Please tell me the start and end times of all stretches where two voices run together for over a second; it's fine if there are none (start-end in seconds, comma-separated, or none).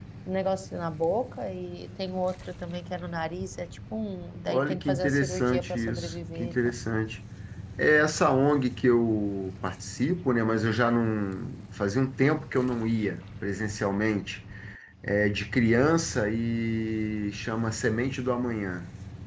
4.5-6.7